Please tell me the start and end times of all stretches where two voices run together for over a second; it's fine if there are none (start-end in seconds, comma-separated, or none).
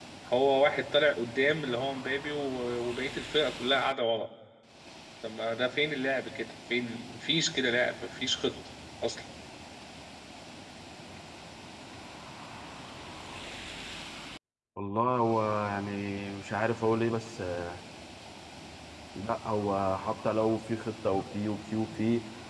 none